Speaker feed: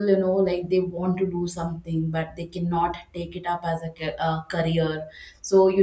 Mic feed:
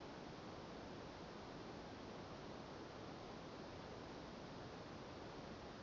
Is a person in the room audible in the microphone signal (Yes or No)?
No